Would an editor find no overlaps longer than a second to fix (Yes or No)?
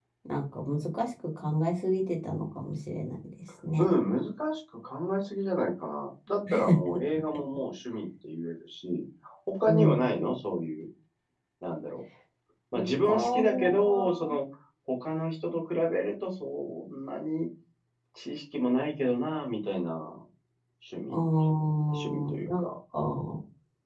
No